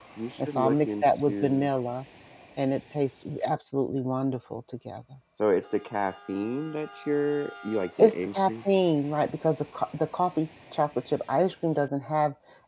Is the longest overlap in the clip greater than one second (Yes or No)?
Yes